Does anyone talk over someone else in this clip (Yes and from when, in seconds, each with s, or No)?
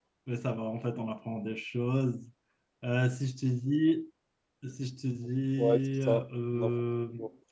Yes, from 5.6 s